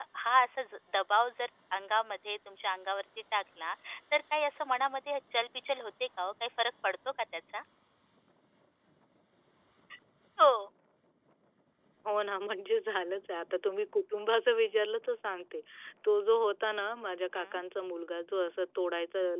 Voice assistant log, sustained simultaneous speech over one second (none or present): none